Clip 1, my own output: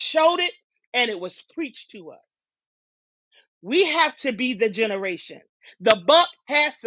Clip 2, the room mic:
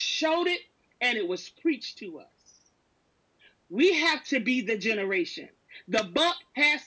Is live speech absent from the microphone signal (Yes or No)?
Yes